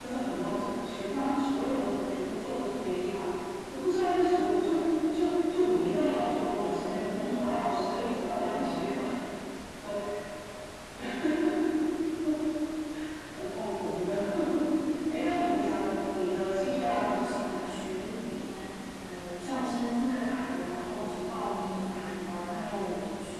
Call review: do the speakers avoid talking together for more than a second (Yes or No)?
No